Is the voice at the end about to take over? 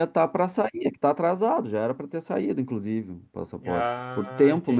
Yes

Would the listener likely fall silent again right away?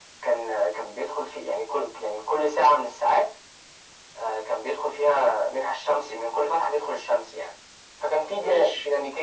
Yes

